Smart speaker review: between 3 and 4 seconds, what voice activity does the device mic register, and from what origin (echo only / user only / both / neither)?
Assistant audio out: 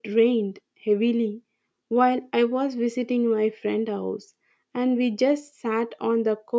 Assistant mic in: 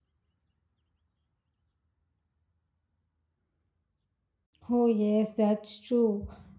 neither